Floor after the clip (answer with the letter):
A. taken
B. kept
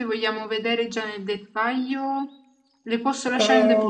A